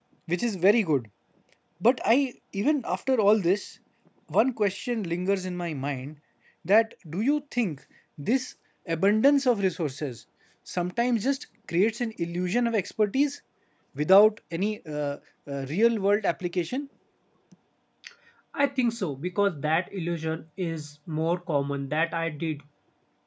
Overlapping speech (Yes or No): No